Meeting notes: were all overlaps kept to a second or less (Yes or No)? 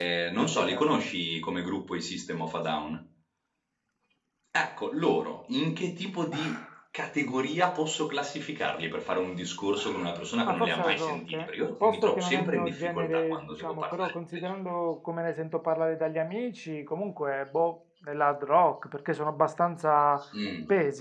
No